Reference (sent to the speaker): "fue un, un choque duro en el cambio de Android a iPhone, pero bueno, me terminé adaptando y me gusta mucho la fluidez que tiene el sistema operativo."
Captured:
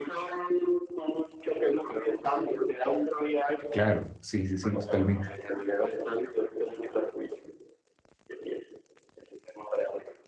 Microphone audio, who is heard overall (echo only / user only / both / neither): both